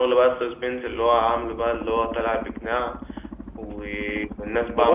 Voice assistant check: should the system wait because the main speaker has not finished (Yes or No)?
No